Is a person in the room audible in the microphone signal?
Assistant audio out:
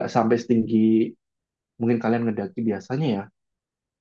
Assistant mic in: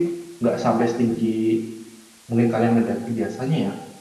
No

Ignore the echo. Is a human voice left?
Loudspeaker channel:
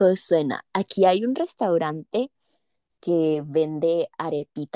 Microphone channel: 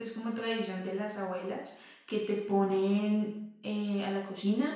Yes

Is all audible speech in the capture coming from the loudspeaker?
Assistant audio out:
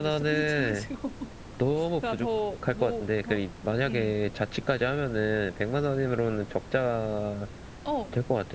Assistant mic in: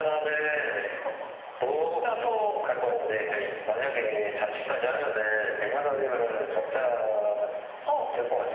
Yes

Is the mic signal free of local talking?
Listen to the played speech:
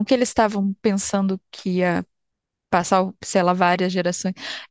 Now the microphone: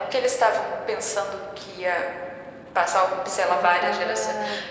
No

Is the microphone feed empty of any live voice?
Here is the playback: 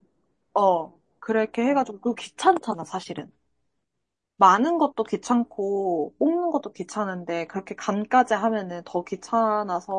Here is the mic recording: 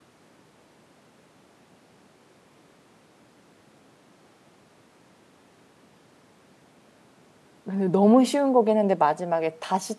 No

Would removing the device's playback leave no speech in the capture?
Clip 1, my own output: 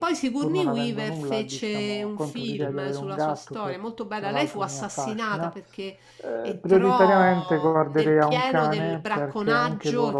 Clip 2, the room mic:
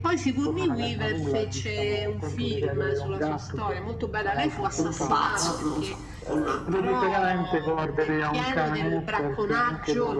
No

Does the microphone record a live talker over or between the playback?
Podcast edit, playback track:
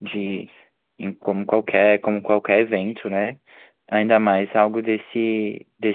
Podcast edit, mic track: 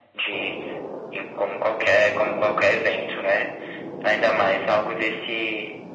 No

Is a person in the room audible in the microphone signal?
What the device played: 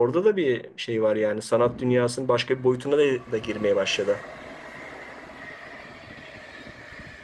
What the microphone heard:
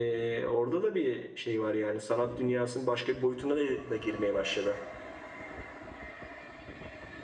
No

